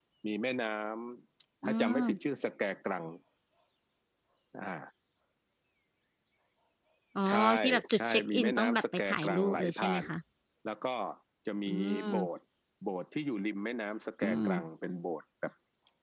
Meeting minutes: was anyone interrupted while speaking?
Yes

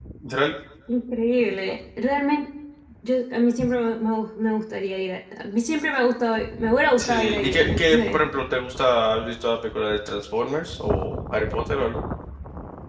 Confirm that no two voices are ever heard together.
No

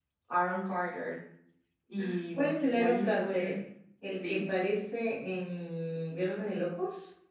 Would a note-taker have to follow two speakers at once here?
Yes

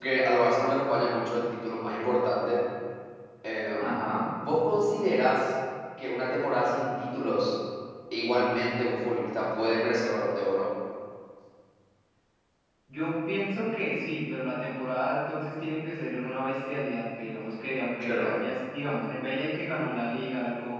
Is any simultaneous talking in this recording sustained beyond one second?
No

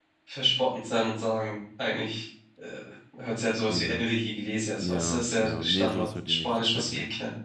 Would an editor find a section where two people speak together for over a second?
Yes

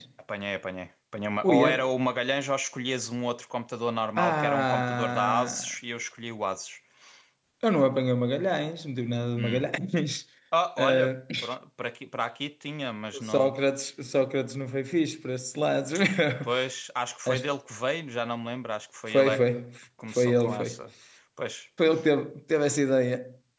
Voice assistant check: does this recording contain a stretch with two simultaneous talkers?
Yes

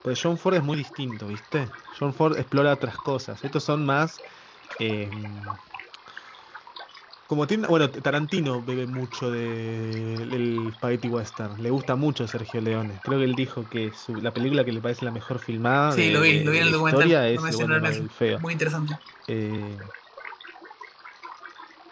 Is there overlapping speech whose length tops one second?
Yes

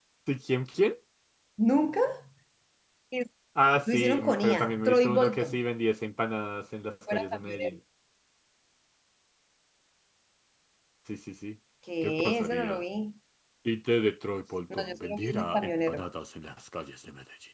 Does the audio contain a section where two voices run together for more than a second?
Yes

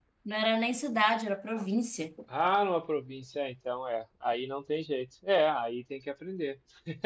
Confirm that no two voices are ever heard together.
Yes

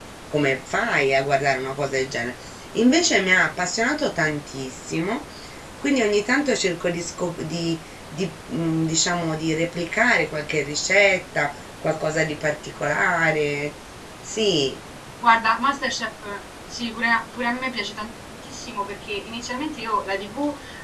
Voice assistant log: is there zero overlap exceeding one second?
Yes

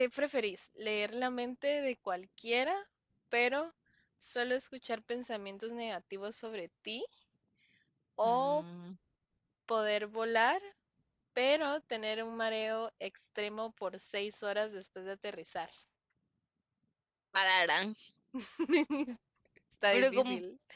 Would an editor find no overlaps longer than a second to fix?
Yes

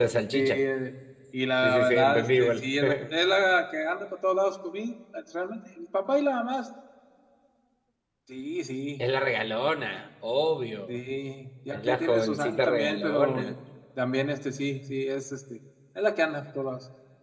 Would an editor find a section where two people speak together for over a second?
Yes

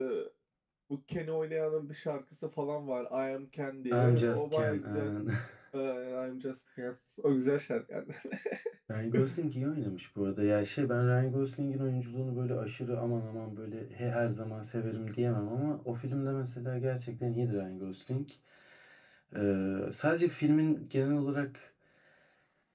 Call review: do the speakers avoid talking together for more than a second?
No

